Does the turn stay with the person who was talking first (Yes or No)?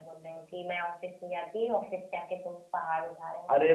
No